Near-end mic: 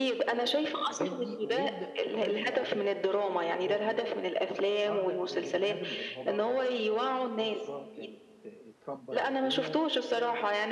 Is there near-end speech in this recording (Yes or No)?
Yes